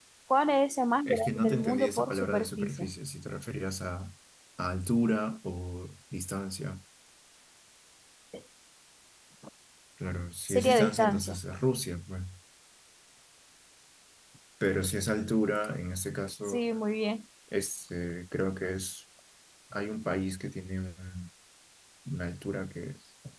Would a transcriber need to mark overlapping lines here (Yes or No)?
Yes